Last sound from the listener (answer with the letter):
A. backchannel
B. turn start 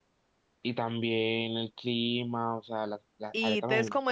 B